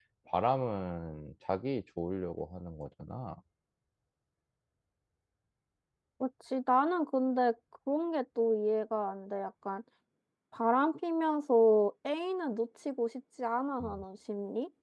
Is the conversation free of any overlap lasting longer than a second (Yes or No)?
Yes